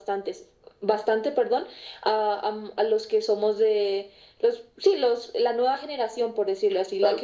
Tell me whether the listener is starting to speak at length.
Yes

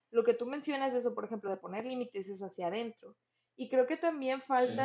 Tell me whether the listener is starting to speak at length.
No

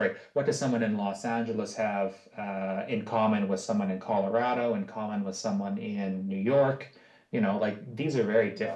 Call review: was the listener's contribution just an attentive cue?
Yes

